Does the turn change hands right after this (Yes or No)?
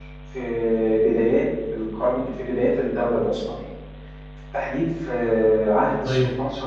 No